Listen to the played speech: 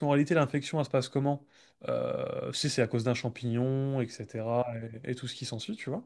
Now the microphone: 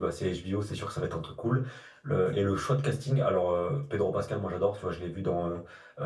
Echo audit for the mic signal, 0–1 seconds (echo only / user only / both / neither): user only